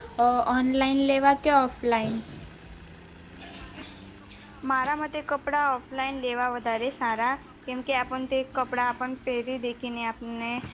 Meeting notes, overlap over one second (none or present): none